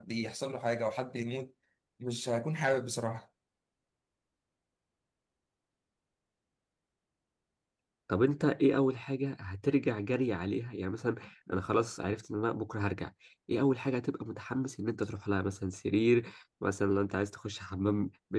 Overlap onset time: none

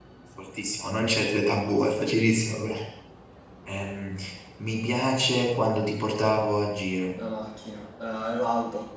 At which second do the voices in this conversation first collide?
none

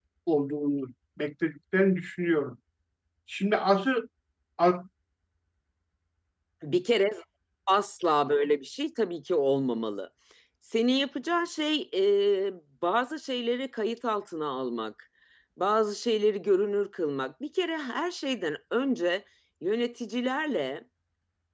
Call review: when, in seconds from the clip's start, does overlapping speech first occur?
none

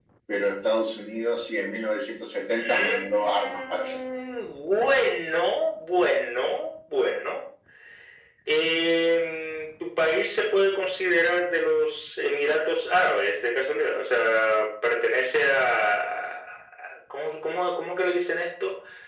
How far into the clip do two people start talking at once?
3 s

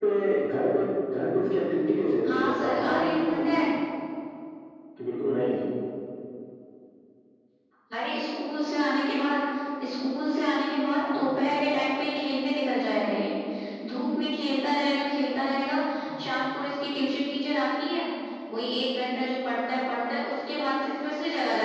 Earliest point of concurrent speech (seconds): 2 s

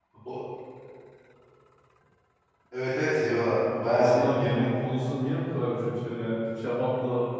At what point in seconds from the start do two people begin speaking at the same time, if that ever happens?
3 s

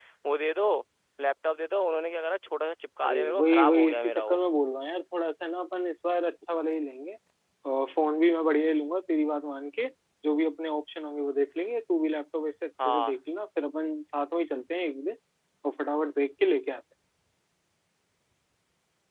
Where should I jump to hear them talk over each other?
3 s

